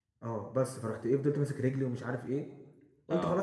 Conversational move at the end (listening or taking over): listening